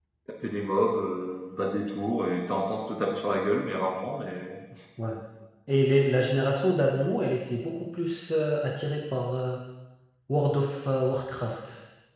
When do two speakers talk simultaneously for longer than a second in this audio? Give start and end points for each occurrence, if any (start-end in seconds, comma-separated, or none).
none